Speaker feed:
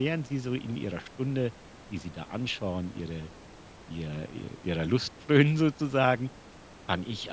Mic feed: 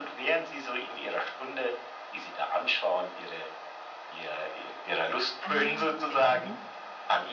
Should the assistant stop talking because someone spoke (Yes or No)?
Yes